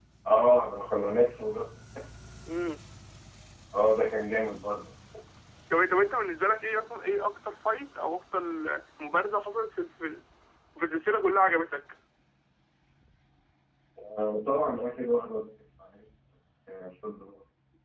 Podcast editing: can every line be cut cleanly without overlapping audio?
Yes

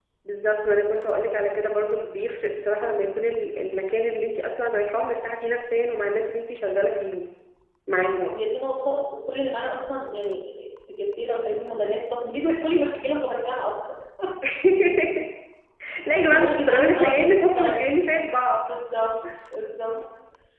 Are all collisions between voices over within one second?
No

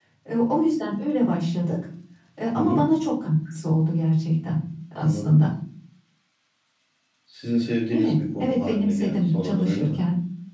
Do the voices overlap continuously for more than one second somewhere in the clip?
Yes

